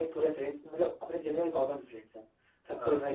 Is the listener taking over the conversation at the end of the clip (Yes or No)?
No